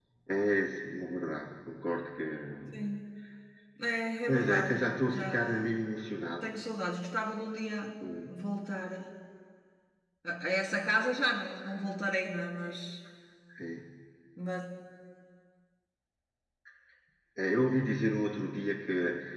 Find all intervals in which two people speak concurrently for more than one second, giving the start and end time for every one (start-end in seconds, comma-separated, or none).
4.3-5.8